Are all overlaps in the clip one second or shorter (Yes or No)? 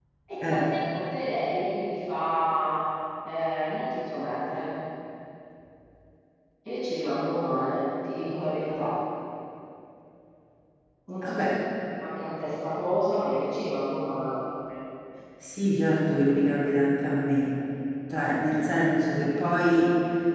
Yes